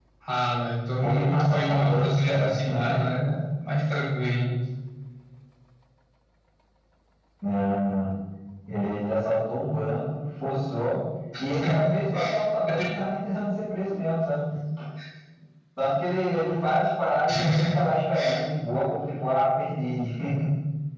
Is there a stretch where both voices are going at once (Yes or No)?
Yes